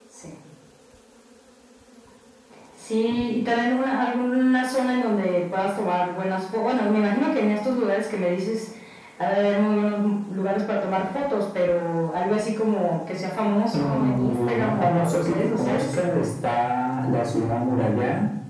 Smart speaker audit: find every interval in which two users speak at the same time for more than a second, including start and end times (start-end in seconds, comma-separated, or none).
13.7-15.9